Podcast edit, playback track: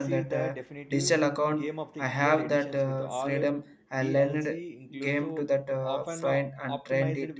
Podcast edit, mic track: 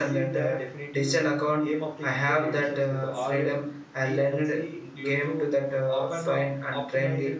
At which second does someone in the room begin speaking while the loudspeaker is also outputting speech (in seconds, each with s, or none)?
none